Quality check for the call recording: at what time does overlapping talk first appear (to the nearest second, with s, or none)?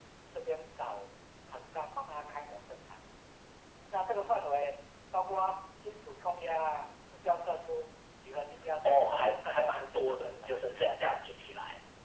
9 s